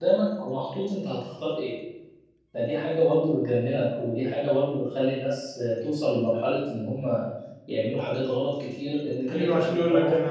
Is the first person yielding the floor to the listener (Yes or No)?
Yes